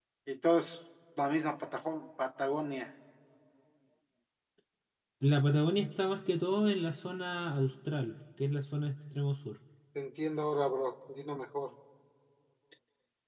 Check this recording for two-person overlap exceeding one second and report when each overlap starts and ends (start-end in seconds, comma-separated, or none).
none